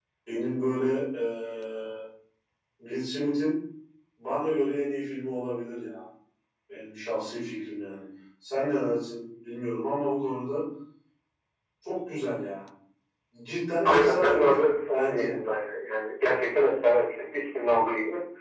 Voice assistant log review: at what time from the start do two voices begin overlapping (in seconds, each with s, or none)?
13.8 s